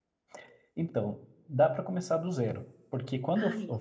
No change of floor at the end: Yes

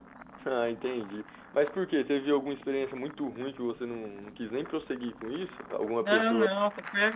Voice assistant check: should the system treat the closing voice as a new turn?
Yes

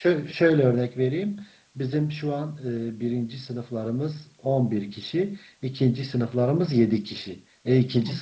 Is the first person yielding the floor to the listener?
No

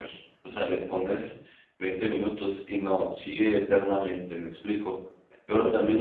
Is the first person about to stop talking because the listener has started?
No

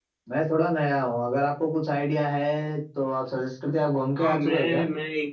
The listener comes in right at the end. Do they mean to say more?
Yes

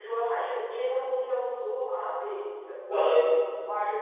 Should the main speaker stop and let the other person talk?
No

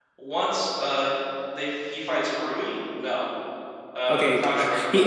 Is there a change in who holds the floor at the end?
Yes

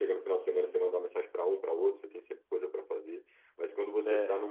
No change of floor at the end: Yes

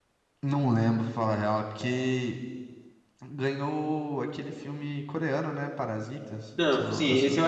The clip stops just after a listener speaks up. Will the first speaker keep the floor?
No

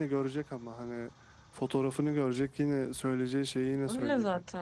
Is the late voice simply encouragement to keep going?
No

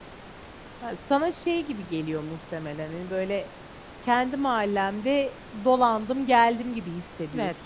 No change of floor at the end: No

